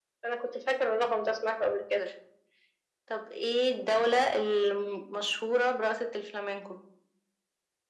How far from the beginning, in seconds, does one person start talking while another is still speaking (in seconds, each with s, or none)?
none